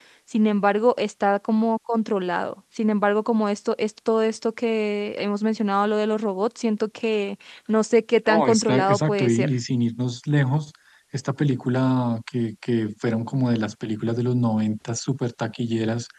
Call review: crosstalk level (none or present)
present